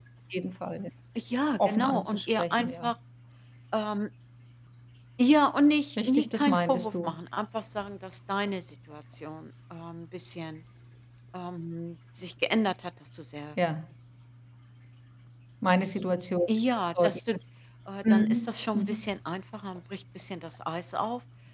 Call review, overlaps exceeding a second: present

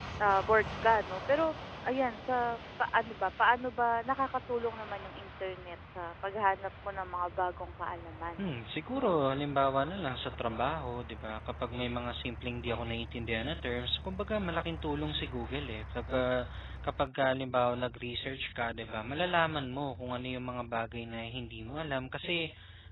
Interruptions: none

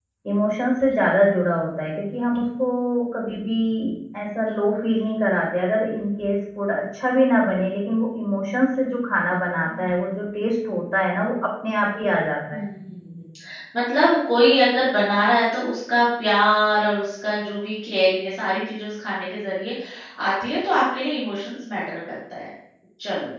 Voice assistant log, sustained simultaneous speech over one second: none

